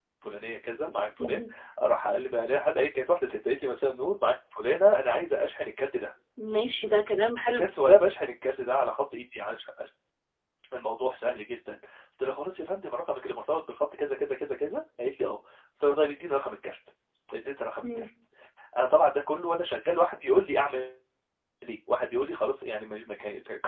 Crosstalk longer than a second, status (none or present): none